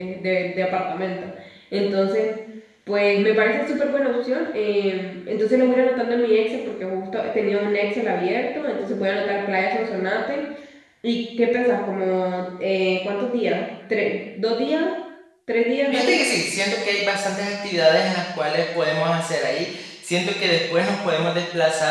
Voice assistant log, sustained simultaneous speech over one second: none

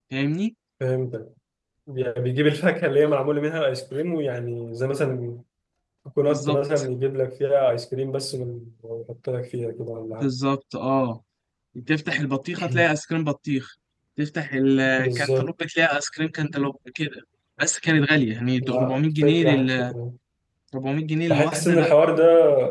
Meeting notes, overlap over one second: present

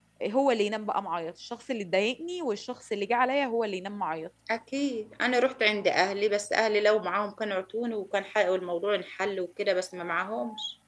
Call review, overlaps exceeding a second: none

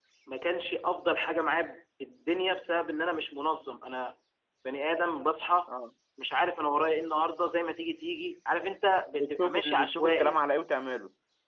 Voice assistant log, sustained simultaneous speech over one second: present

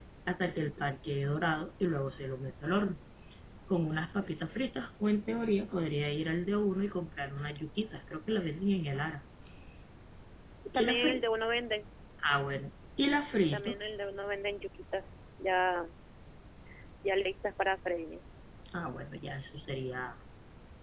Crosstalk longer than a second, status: none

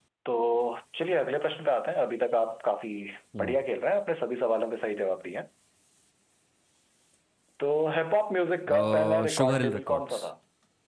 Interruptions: present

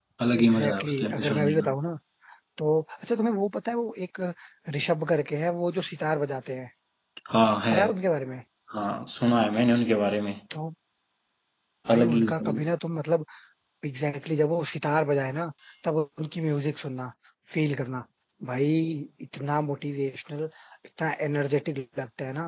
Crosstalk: present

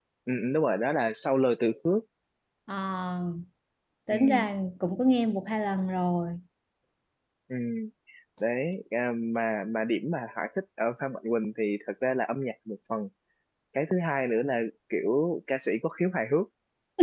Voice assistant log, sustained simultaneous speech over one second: none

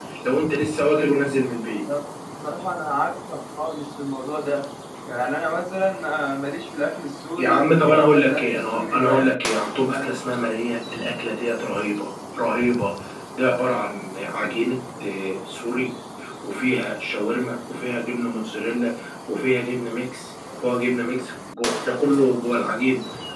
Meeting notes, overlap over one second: present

